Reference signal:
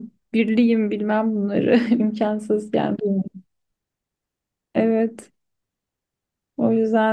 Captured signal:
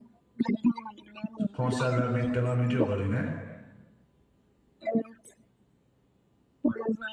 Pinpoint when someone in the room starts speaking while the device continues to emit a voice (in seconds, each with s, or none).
1.5 s